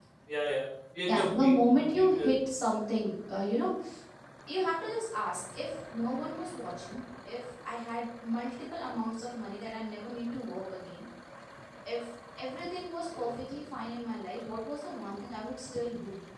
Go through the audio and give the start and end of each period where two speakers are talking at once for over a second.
1.1-2.3

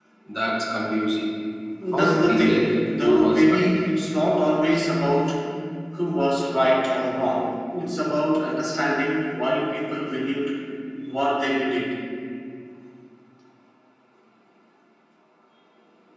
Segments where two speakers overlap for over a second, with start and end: 1.9-3.8

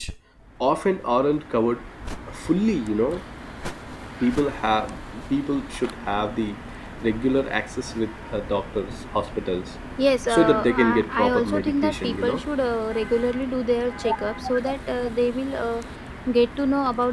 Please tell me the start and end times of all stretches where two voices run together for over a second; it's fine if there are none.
10.3-12.4

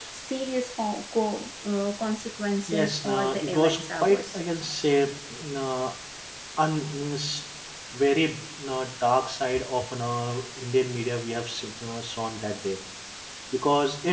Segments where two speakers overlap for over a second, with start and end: 2.7-4.5

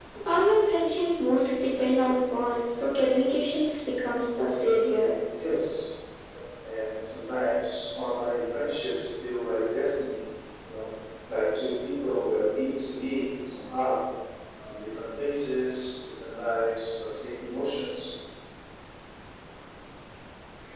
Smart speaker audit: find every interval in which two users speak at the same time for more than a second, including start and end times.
none

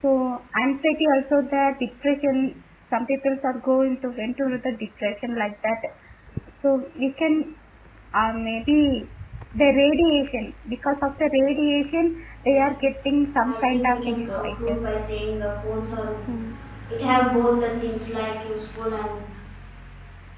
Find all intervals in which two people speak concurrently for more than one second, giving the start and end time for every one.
13.4-14.8

